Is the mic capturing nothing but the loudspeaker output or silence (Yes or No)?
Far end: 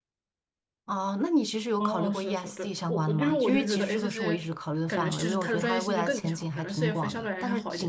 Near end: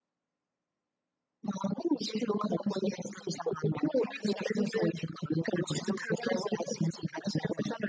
Yes